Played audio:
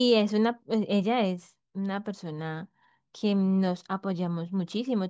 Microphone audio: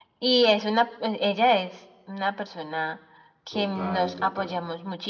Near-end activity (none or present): present